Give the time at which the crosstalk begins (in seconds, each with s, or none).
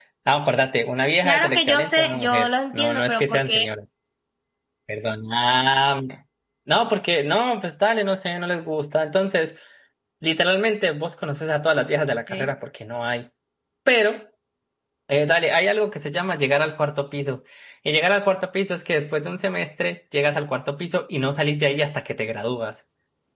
1.2 s